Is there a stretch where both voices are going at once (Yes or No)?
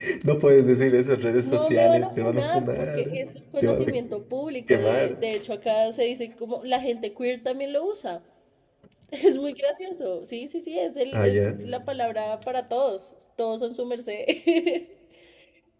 Yes